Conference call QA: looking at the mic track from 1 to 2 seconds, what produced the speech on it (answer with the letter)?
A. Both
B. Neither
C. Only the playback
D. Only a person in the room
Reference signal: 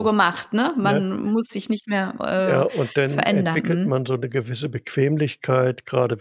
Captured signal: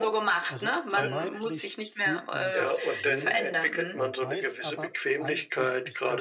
A